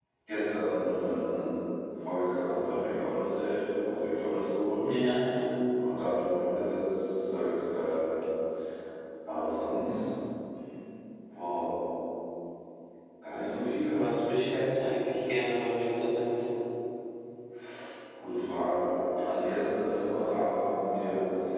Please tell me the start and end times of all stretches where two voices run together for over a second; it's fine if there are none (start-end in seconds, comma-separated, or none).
none